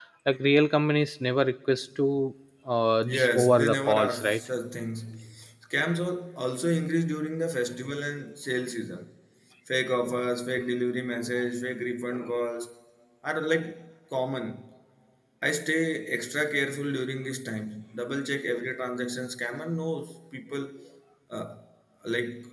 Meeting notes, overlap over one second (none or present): present